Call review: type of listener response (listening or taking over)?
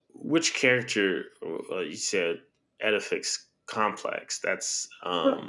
taking over